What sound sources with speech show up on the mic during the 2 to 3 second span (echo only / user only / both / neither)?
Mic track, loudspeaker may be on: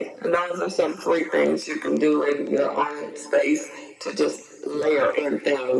echo only